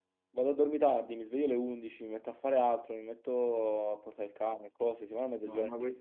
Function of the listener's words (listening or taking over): taking over